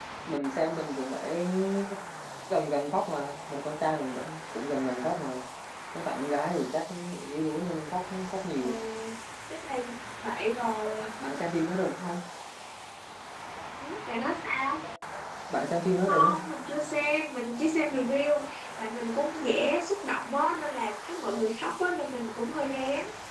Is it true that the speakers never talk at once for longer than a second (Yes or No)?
Yes